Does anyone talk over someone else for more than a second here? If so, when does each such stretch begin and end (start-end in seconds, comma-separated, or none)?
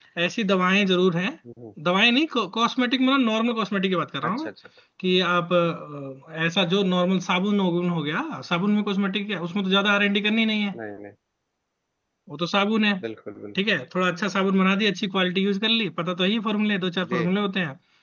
none